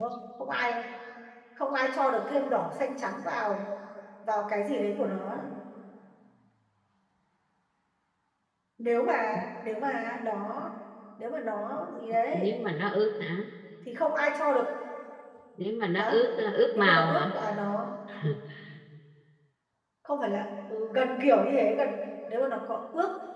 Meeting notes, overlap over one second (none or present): none